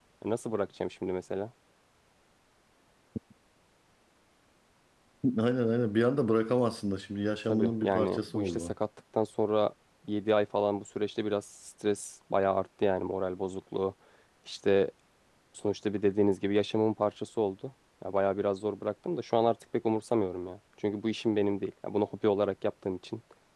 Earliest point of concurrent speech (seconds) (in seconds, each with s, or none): 7.5 s